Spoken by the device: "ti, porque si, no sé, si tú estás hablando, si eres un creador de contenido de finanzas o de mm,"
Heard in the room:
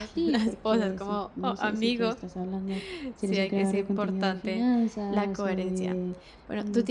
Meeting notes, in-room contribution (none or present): present